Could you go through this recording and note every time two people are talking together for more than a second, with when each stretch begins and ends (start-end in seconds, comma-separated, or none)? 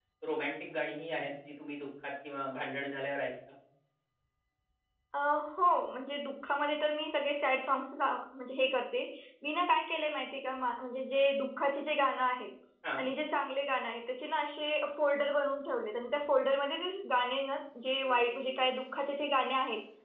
none